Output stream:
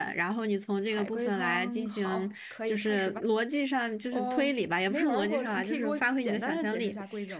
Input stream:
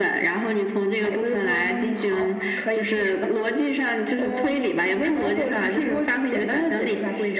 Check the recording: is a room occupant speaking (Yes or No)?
No